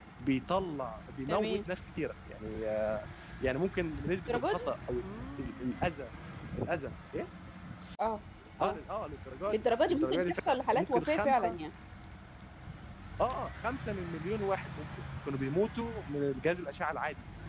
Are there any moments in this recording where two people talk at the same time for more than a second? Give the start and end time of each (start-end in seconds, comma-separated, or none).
9.5-11.6